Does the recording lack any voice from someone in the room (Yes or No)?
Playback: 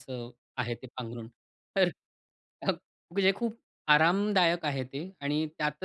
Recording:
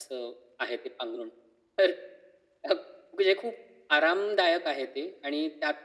Yes